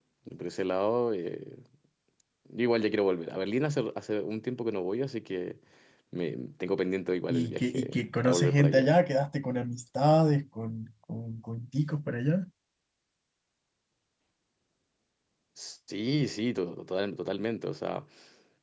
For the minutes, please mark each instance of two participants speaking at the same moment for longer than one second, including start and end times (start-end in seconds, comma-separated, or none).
7.3-8.9